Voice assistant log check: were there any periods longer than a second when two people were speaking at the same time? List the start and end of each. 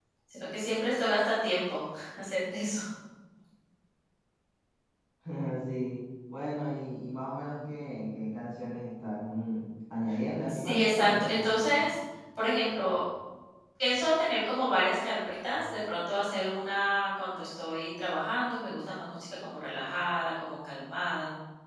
10.5-11.8

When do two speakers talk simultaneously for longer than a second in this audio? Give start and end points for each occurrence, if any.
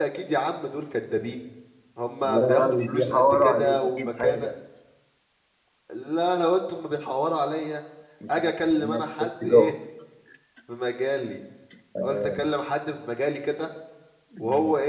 2.2-4.5, 8.3-9.7

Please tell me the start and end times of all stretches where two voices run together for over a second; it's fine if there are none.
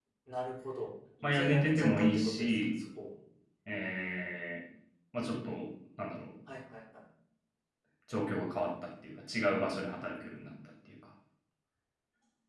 1.3-2.6

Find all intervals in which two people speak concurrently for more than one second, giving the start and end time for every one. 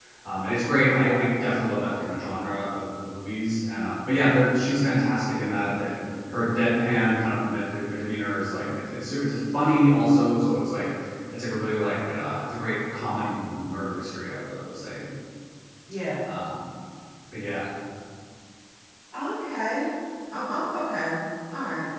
none

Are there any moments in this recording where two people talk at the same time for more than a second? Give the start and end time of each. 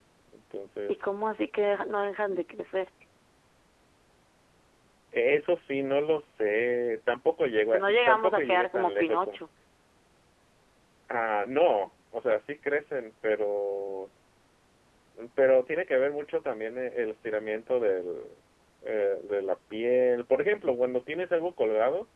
7.7-9.4

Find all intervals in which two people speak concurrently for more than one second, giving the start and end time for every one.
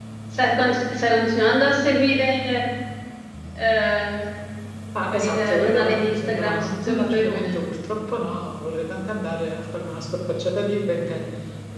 5.2-7.6

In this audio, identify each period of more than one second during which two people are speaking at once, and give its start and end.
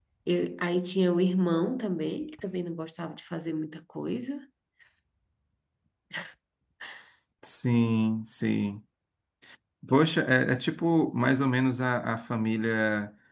none

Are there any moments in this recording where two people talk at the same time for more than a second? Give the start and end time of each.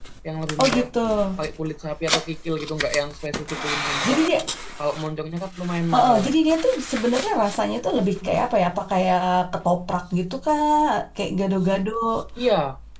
none

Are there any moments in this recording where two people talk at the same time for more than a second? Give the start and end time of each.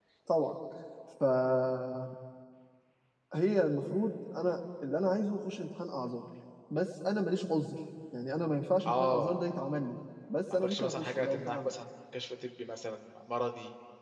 10.5-11.7

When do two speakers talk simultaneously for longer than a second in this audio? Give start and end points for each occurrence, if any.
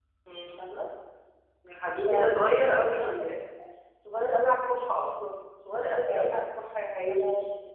2.0-3.2

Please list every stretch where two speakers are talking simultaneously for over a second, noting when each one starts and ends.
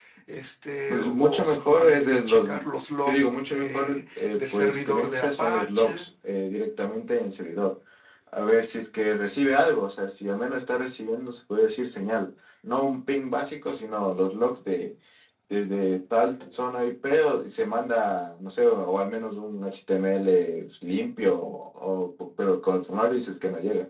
0.9-2.5, 3.1-6.1

